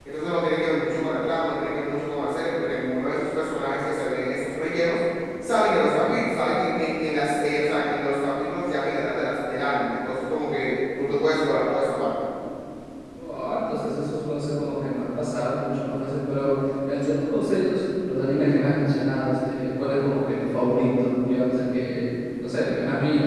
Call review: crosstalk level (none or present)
none